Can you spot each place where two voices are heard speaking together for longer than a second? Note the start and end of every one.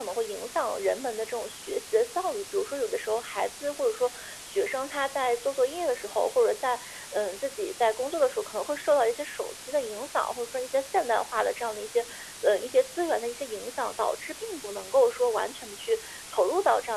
none

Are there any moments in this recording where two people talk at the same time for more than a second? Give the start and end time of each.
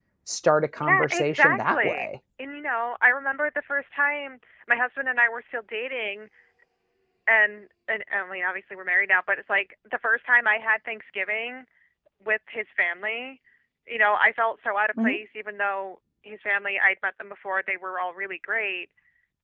0.8-2.1

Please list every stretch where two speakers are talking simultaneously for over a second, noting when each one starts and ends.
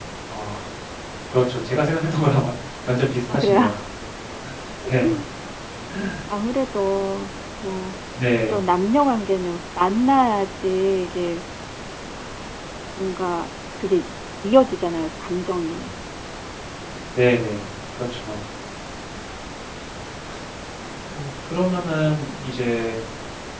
none

